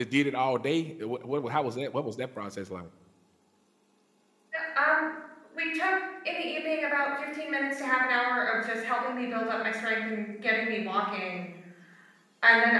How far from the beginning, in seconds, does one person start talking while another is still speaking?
none

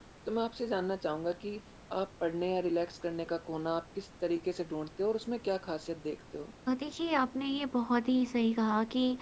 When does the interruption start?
none

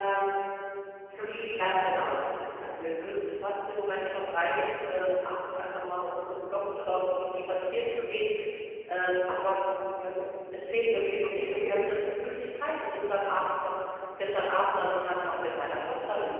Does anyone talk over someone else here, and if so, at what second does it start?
none

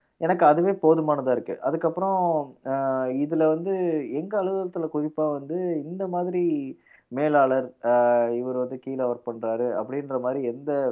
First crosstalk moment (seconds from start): none

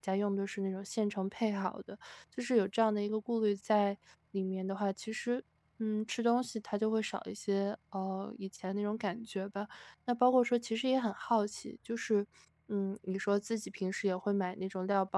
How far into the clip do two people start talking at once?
none

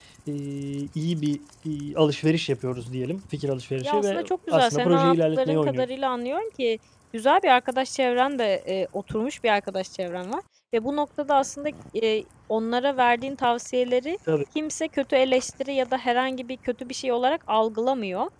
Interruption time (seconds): 4 s

